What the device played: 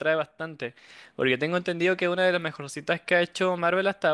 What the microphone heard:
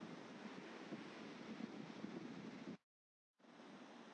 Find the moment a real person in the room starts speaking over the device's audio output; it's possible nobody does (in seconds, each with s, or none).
none